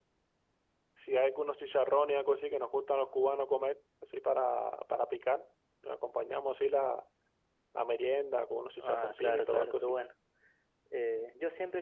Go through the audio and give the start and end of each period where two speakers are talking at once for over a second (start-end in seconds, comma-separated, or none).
8.8-10.0